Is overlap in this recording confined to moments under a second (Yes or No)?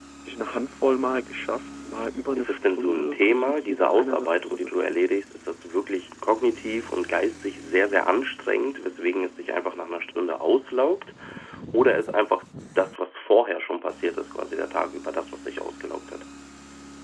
No